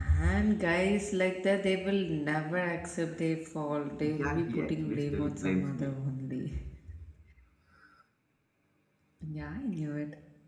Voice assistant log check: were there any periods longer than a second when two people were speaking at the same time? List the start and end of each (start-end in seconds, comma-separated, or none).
4.0-6.0